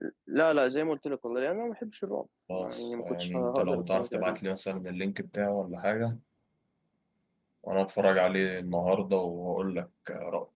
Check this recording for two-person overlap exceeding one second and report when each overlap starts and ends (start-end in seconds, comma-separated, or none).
2.5-4.4